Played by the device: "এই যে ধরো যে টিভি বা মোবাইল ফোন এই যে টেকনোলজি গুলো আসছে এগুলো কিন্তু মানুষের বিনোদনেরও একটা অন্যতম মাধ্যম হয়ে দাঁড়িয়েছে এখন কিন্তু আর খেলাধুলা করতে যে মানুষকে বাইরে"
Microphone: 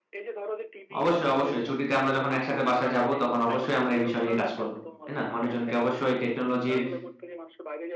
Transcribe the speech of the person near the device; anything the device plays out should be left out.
অবশ্যই অবশ্যই ছুটিতে আমরা যখন একসাথে বাসায় যাব তখন অবশ্যই আমরা এই বিষয় নিয়ে কাজ করব তাই না মানুষজনকে অবশ্যই টেকনোলজির

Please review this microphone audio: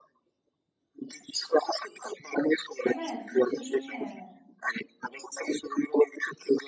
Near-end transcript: Evet kötü diye

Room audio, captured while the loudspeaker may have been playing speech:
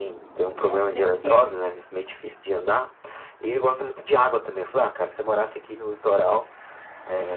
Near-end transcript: né? Até porque

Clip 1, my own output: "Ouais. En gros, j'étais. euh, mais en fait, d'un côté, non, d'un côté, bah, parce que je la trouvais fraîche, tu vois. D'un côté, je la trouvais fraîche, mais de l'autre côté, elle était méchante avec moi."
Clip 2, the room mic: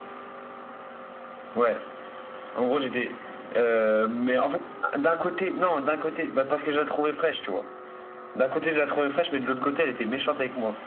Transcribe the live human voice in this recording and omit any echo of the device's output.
none

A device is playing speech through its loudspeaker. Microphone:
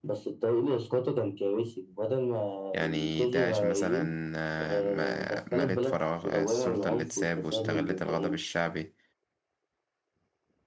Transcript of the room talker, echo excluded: يعني داعش مثلا آه، ما- ملت فراغ آه، السلطة اللي اتساب واستغلت الغضب الشعبي

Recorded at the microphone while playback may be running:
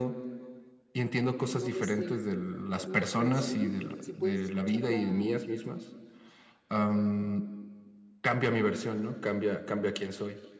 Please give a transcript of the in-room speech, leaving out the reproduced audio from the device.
No lo sé una canción, si puedes escucharla,

